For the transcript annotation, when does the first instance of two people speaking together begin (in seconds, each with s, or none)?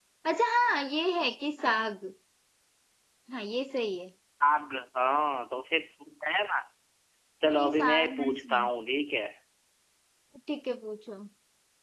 7.5 s